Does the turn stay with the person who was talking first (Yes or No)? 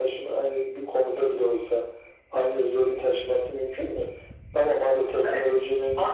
No